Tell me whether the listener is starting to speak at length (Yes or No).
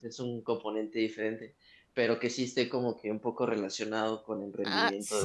Yes